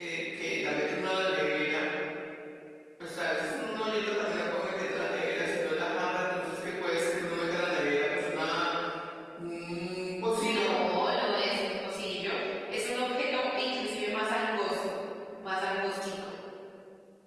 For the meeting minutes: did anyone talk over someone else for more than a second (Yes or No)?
No